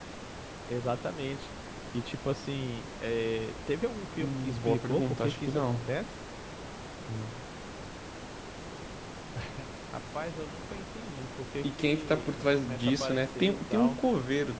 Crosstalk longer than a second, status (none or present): present